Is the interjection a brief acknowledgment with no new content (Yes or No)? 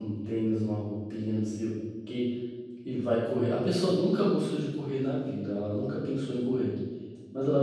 Yes